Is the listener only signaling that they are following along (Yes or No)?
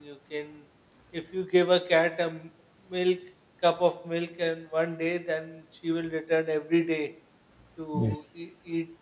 Yes